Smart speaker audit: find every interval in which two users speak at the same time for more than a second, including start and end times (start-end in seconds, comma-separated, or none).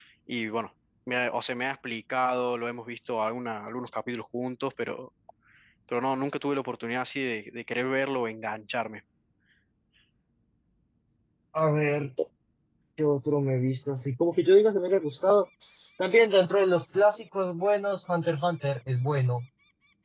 none